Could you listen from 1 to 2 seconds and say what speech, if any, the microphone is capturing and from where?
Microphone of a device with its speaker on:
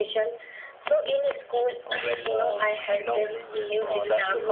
echo only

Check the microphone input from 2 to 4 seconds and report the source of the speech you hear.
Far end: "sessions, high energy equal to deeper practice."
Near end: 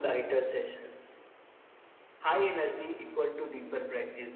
echo only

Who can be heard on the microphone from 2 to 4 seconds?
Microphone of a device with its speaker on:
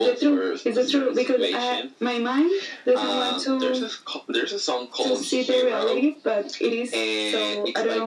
echo only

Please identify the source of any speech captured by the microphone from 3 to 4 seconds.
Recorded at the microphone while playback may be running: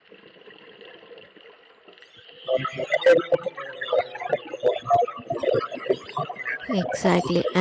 echo only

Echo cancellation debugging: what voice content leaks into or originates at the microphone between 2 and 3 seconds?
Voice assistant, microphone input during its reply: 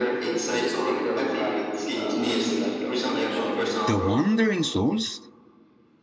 echo only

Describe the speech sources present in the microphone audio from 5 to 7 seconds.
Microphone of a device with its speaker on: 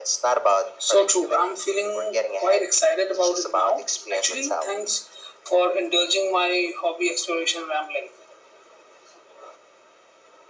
echo only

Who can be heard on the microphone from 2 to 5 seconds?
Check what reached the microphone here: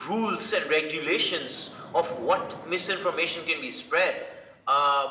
echo only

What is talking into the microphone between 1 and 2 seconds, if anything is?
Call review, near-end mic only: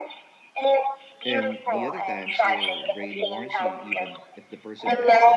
both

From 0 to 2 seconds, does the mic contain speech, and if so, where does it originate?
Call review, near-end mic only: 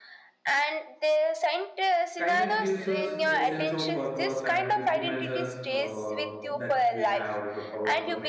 echo only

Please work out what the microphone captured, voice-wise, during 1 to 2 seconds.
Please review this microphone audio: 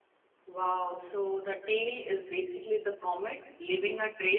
user only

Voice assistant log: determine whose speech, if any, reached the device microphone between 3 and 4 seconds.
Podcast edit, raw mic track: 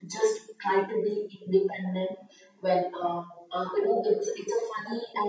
echo only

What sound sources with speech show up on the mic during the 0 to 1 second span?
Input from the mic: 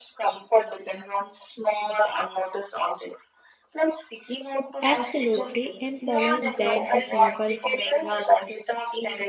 echo only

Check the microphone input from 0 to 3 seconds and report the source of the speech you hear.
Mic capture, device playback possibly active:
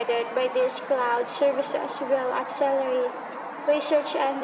echo only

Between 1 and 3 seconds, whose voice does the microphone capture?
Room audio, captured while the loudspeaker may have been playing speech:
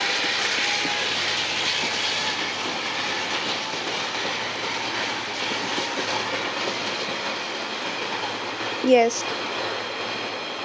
neither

